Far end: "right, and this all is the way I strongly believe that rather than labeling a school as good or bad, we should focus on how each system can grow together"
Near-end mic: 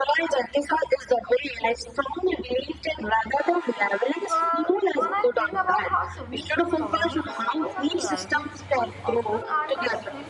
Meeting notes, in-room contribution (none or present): present